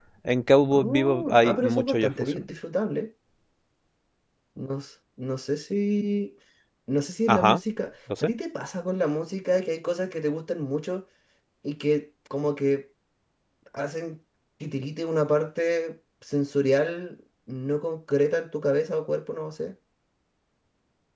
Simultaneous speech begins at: 0.7 s

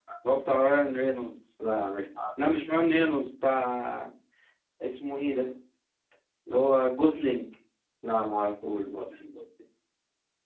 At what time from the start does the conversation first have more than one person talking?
none

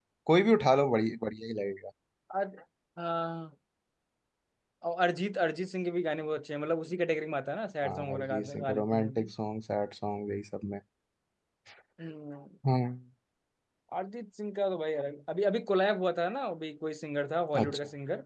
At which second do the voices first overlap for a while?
7.8 s

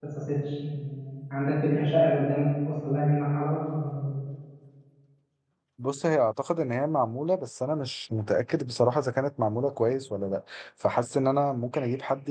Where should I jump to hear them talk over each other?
none

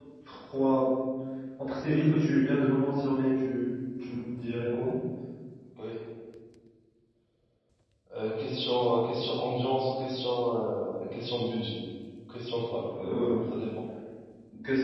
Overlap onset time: none

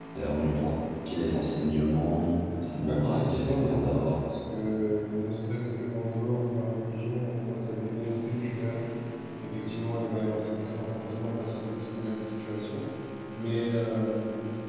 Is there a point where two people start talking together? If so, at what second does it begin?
2.9 s

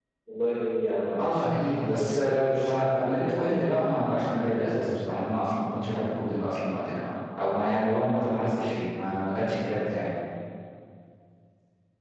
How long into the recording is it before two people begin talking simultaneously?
1.2 s

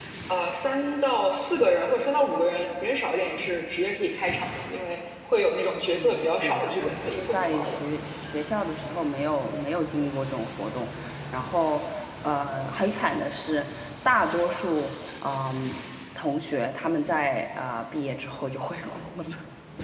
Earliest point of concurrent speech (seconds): 6.0 s

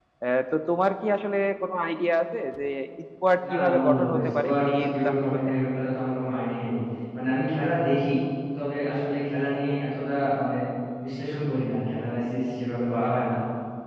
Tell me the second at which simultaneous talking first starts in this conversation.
3.5 s

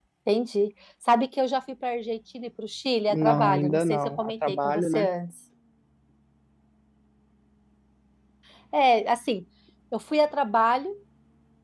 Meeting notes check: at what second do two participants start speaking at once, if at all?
3.1 s

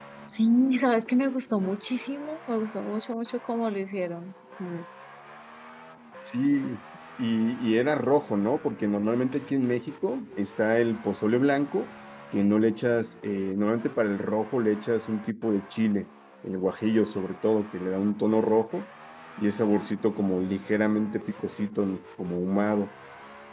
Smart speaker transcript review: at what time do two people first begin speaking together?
none

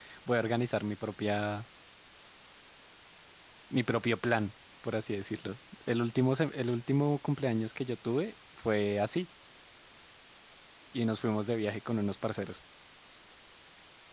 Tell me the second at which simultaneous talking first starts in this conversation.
none

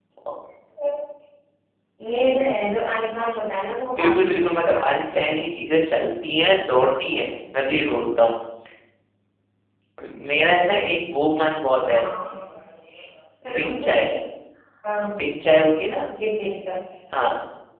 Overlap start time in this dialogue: 4.0 s

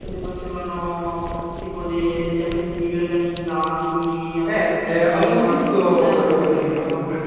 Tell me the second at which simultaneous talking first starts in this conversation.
4.5 s

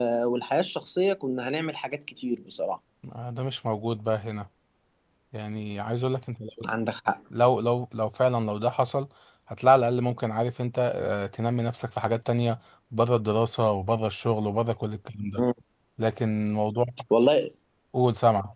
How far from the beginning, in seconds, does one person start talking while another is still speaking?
none

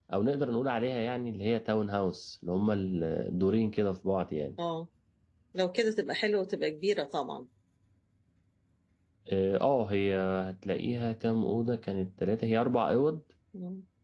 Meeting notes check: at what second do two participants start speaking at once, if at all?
none

